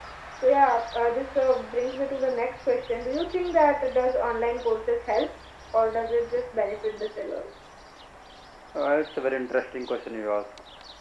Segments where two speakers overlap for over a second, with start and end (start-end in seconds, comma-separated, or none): none